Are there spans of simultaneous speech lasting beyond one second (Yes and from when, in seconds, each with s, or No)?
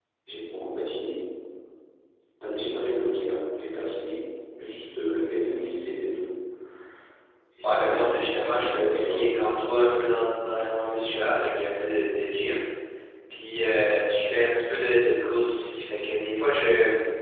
Yes, from 7.6 s